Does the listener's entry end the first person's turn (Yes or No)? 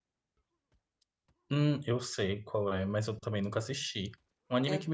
No